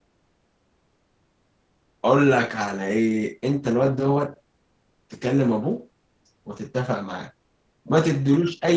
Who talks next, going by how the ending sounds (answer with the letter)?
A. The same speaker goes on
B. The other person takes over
A